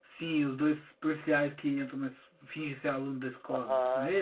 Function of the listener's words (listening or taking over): taking over